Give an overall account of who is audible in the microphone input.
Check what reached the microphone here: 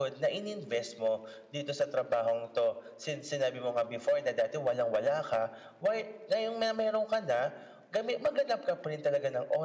echo only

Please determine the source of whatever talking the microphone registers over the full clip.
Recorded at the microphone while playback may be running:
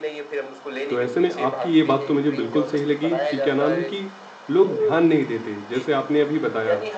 both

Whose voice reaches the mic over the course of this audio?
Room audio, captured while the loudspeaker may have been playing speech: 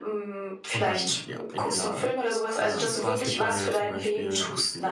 both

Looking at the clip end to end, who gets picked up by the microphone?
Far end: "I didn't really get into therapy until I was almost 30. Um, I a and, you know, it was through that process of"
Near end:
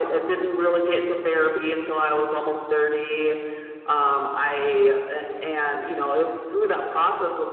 echo only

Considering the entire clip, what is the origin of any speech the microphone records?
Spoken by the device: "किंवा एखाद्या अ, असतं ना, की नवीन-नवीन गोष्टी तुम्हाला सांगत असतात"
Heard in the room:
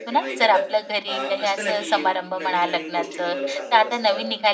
both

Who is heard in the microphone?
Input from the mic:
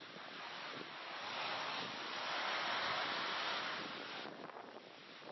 neither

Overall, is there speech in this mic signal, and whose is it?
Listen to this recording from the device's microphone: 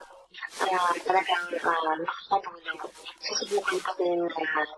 echo only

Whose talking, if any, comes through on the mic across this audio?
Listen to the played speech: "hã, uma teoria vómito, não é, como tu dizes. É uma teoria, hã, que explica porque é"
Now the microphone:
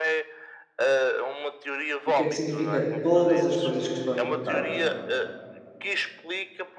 both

